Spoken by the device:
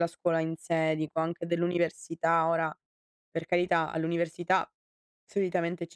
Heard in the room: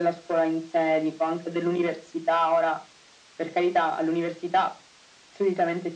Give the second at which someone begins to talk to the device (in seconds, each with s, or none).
none